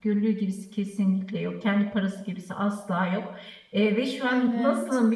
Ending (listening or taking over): listening